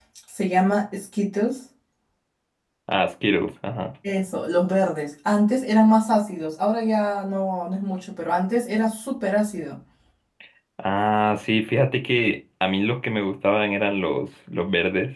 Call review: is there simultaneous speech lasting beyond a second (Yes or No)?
No